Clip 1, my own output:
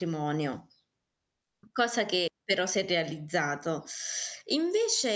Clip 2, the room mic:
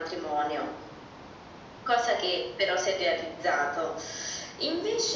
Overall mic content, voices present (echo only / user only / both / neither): echo only